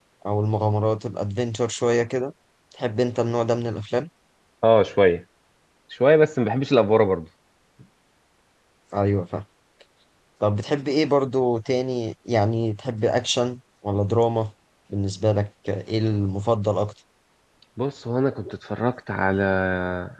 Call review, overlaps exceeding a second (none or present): none